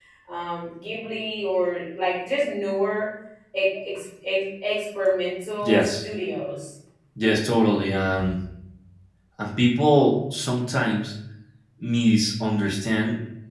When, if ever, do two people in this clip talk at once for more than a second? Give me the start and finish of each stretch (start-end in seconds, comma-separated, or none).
none